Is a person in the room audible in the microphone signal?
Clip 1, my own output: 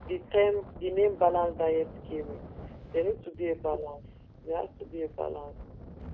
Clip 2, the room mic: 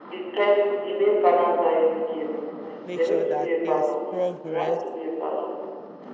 Yes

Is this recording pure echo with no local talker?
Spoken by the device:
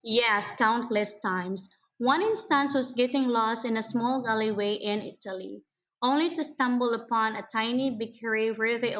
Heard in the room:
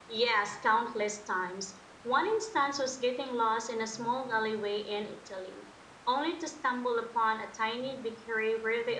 Yes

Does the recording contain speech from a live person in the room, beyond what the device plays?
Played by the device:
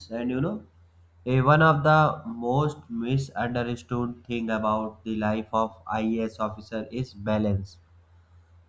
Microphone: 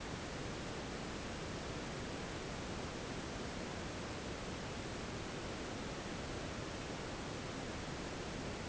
No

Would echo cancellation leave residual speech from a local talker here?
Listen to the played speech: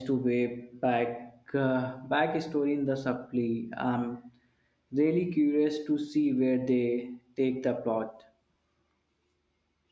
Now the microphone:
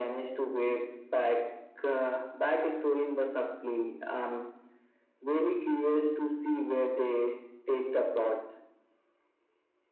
No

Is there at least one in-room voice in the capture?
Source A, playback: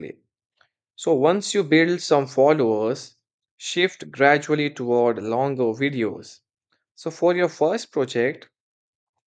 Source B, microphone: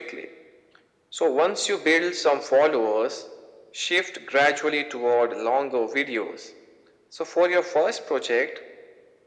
No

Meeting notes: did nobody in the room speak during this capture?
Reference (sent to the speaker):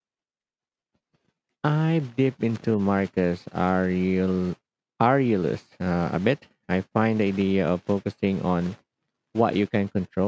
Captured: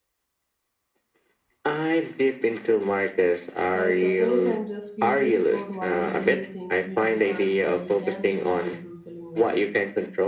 No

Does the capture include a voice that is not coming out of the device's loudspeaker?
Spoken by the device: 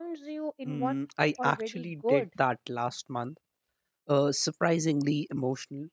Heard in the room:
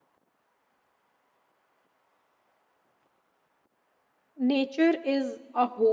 Yes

